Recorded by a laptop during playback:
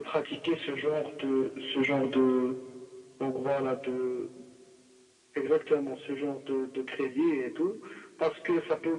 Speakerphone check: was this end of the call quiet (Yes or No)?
Yes